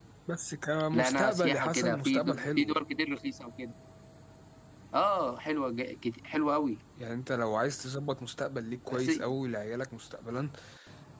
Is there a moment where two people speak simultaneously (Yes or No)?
Yes